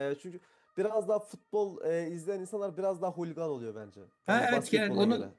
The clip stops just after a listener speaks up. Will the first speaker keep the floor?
No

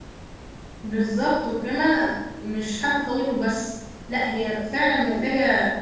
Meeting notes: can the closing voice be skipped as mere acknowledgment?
Yes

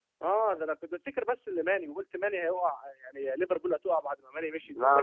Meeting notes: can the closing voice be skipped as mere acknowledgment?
Yes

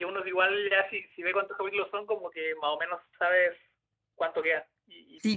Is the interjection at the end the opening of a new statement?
Yes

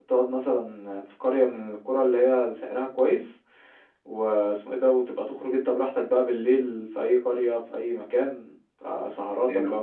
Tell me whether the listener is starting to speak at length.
No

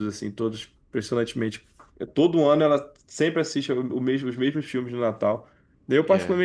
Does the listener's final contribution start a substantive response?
No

